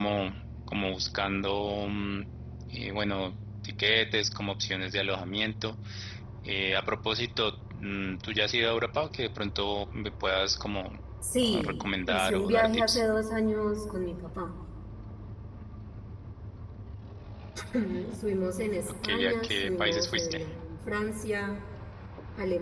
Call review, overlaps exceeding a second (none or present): present